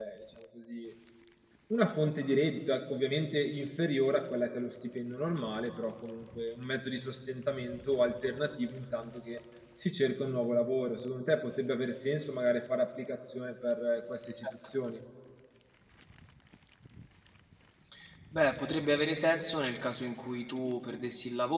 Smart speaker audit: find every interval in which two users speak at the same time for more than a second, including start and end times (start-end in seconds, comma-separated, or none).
none